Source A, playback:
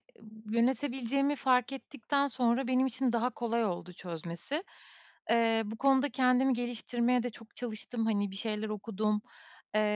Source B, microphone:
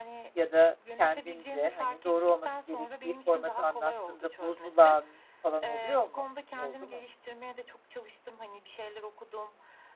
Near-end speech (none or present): present